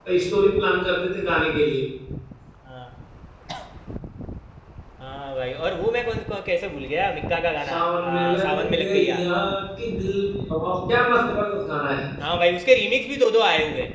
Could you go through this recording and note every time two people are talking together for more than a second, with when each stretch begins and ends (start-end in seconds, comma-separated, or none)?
7.7-9.3